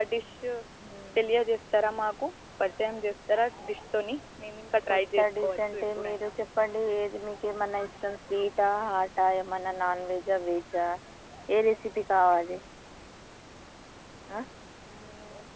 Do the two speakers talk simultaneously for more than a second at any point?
Yes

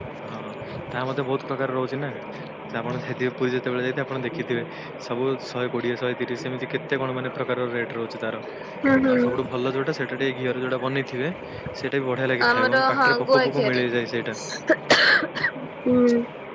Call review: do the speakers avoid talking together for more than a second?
No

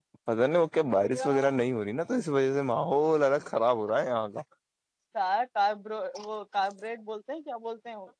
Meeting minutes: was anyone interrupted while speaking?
No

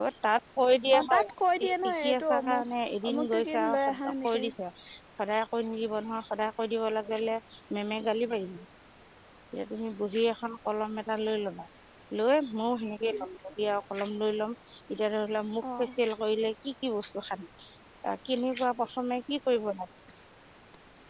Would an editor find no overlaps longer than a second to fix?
No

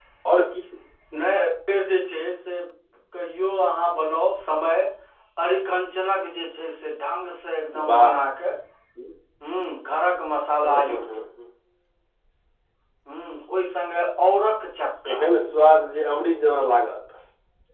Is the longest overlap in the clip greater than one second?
No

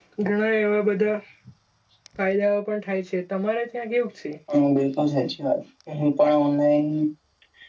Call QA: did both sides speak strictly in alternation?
Yes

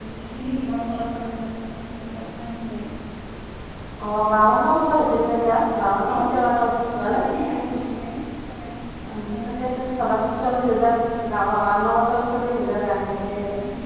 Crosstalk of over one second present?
No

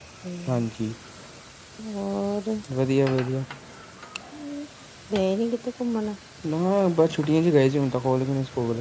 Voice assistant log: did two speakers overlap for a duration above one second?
No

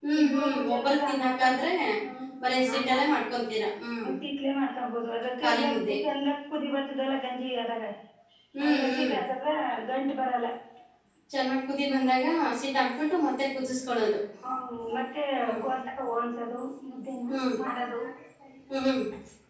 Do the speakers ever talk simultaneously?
Yes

